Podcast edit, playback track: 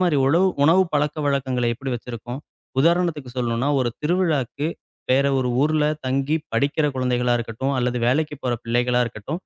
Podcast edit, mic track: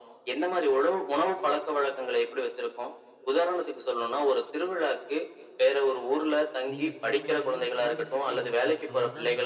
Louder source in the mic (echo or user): echo